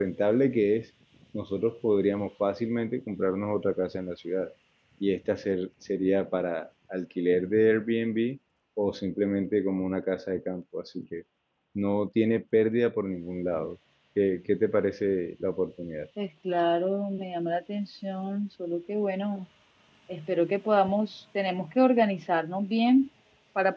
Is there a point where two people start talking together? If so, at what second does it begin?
none

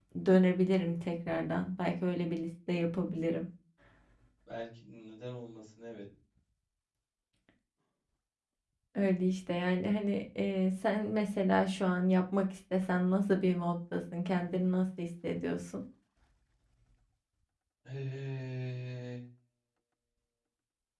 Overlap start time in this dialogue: none

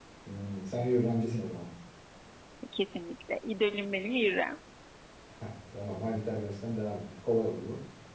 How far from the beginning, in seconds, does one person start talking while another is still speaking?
none

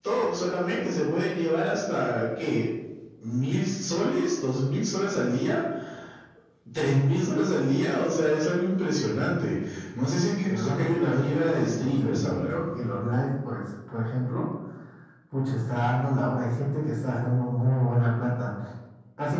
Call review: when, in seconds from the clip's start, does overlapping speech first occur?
10.5 s

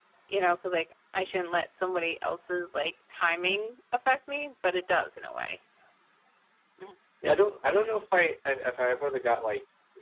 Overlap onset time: none

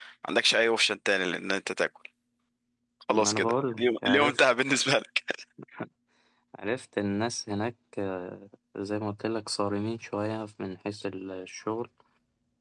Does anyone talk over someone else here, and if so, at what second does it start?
3.1 s

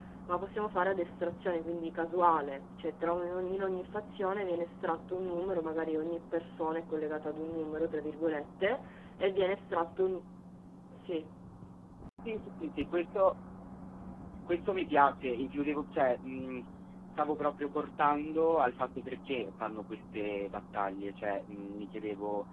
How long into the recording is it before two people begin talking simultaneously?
none

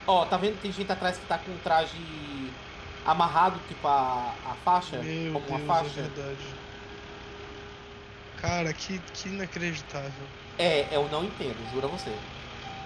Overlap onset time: 4.9 s

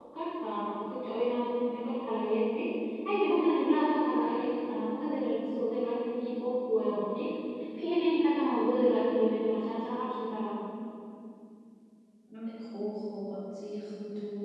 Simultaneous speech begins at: none

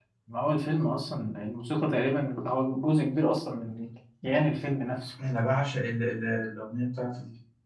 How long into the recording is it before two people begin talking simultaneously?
none

